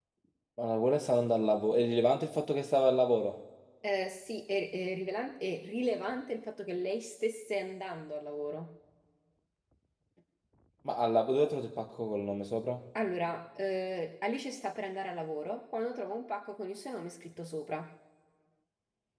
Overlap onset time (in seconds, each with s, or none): none